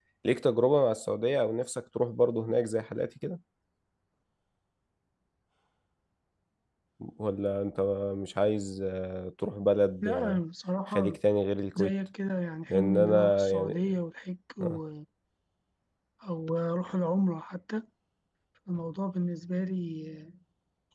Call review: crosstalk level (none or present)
present